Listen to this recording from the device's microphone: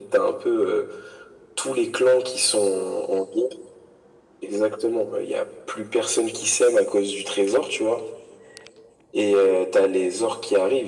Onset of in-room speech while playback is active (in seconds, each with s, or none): none